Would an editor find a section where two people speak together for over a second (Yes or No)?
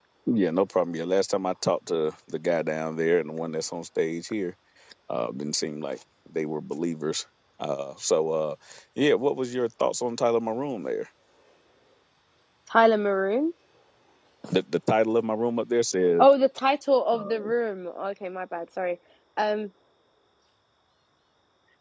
No